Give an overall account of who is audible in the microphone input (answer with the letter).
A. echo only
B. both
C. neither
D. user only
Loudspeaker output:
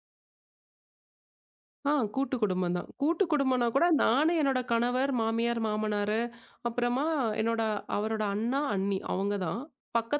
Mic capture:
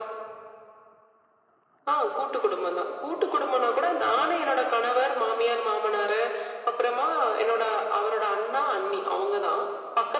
A